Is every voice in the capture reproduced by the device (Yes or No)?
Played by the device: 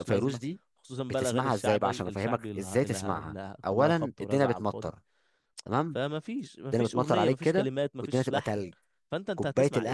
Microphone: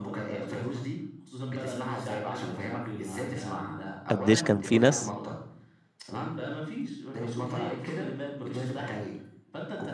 No